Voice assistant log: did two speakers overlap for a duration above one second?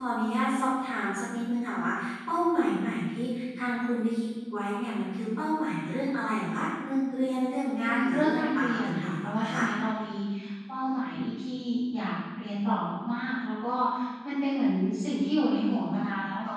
Yes, from 7.8 s

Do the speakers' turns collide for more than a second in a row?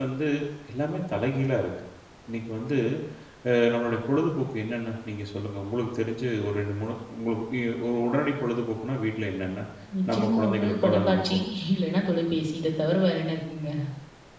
Yes, from 10.1 s

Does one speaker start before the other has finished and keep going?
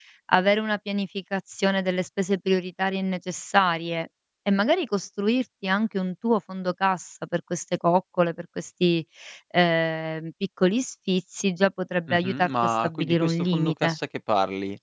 Yes, from 12.1 s

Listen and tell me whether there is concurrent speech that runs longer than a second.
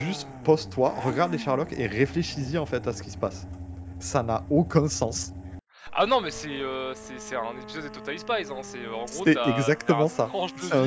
Yes, from 9.1 s

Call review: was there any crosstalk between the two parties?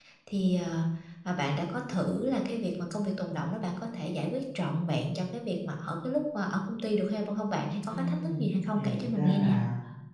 Yes, from 7.9 s

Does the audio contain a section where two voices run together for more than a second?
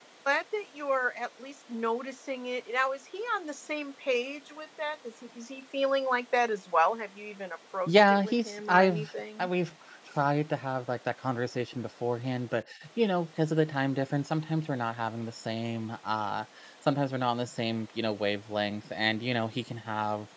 Yes, from 7.9 s

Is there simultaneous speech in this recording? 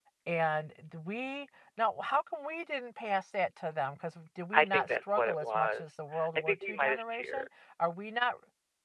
Yes, from 4.5 s

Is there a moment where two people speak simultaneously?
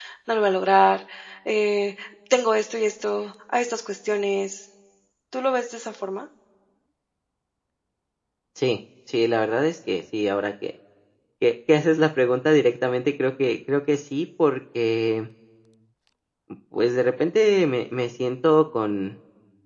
No

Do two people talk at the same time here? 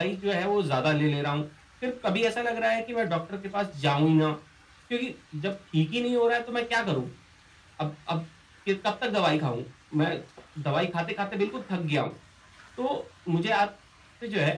No

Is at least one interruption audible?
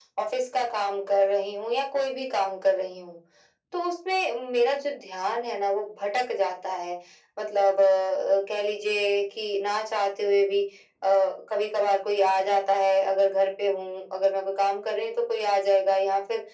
No

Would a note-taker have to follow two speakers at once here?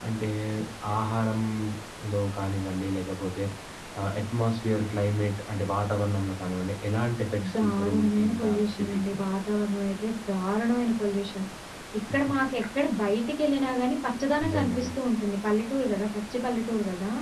Yes, from 7.6 s

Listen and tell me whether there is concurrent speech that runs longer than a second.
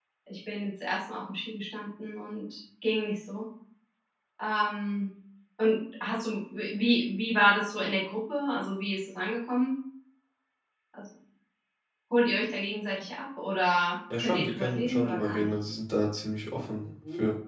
Yes, from 14.1 s

